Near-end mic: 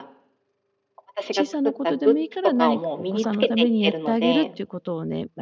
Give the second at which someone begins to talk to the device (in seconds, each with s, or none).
1.3 s